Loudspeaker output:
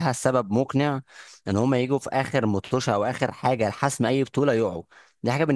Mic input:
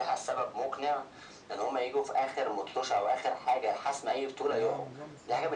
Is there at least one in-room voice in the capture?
Yes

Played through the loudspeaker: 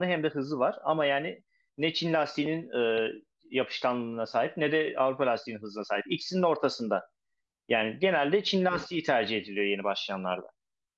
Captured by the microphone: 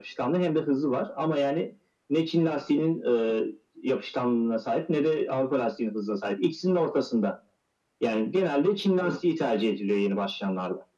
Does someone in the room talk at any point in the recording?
No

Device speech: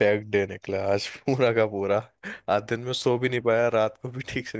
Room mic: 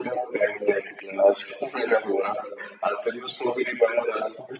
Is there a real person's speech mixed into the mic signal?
No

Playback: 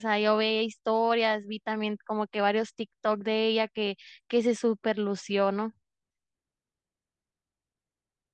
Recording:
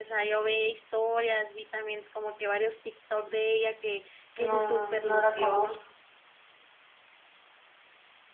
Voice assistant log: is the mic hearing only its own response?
No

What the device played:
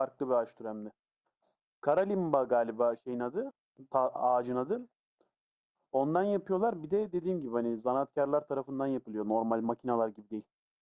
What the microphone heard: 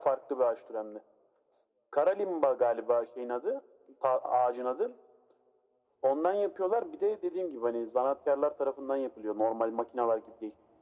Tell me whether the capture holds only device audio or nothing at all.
Yes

